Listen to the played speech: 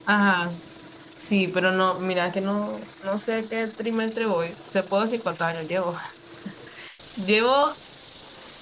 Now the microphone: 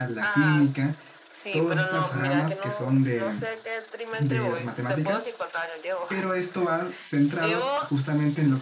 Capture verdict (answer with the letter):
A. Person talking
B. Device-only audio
A